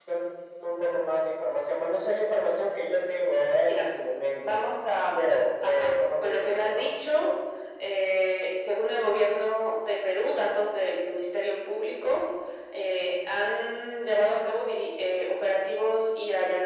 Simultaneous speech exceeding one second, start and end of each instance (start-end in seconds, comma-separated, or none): 5.6-6.9